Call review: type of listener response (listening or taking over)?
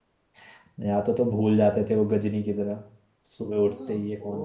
taking over